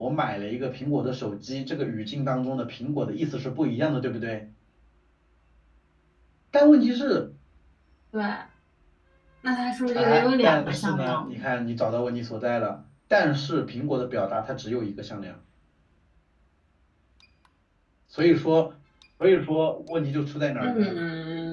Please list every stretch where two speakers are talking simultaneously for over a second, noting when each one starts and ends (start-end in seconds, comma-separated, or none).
9.9-11.4